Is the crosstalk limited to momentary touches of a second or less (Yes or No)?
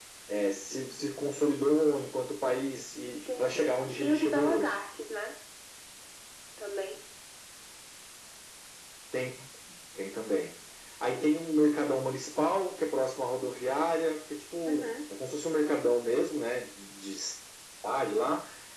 No